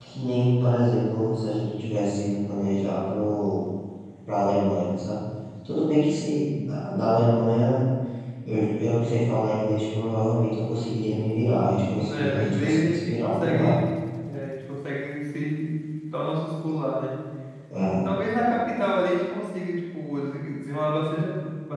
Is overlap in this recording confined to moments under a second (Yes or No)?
No